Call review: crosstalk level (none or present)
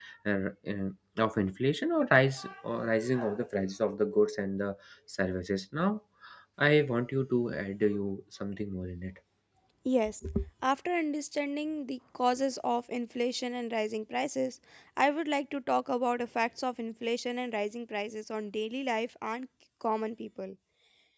none